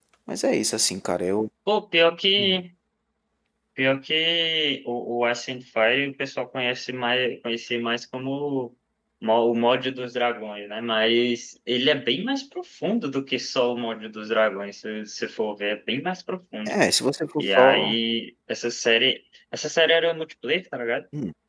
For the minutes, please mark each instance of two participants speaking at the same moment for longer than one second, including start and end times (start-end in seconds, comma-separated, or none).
none